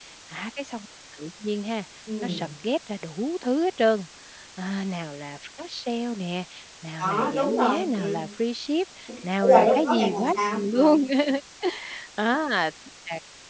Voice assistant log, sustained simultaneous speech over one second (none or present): present